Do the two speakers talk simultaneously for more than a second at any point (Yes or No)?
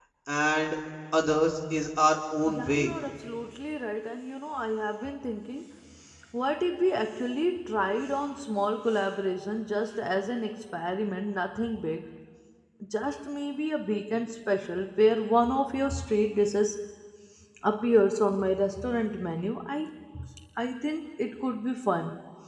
No